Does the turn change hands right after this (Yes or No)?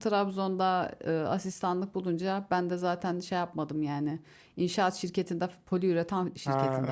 Yes